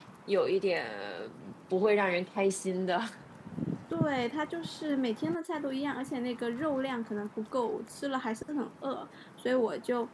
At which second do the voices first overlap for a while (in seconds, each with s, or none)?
none